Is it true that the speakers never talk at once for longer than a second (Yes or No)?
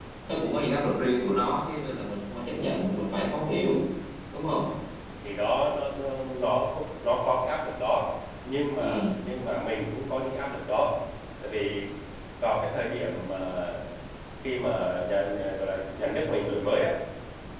Yes